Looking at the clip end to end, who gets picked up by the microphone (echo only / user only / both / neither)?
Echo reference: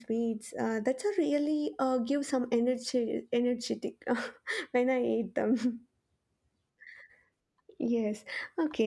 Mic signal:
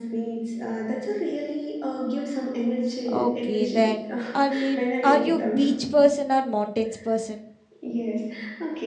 both